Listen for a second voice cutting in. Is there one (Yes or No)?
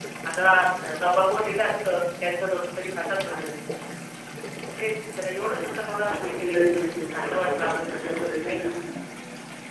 Yes